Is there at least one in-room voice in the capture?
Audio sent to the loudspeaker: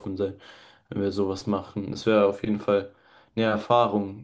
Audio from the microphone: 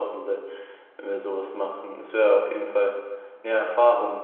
No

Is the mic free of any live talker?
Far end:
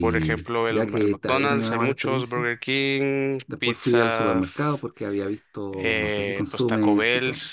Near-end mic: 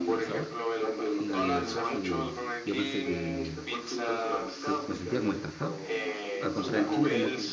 No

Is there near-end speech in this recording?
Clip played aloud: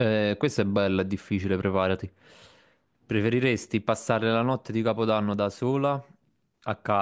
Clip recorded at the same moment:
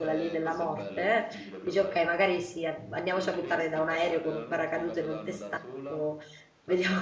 Yes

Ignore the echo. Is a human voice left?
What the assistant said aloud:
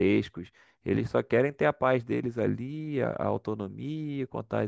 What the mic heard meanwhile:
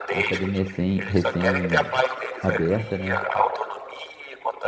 Yes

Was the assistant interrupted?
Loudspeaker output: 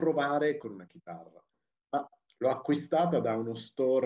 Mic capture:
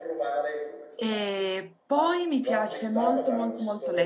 Yes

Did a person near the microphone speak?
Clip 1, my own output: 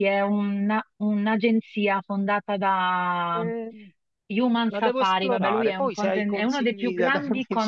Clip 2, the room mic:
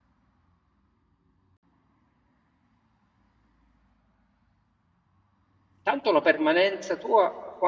Yes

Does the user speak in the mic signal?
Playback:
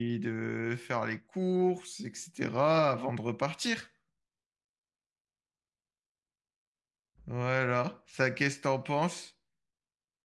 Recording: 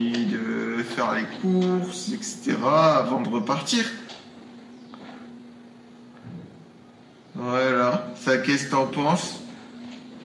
No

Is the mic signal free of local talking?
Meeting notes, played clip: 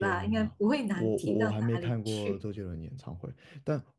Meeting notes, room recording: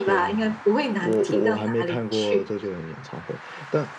Yes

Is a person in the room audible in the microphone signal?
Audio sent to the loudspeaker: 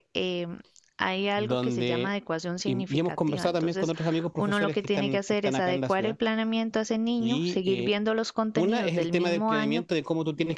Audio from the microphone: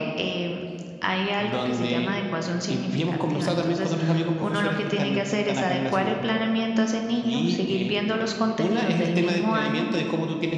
No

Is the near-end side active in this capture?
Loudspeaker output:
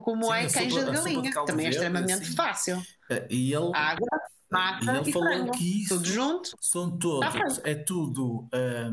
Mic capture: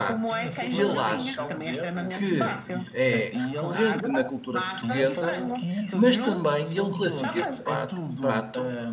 Yes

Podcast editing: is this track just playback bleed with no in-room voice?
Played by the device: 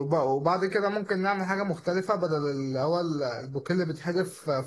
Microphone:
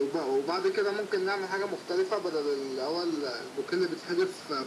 Yes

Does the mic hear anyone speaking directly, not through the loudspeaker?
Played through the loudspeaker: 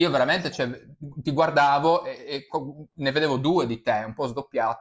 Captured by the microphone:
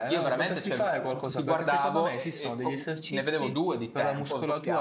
Yes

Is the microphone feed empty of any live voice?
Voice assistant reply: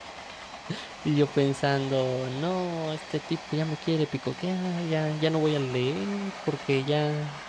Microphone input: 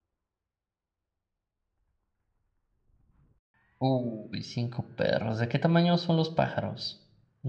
No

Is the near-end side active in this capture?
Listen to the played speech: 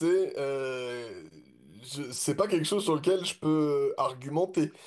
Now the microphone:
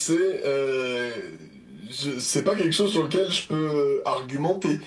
No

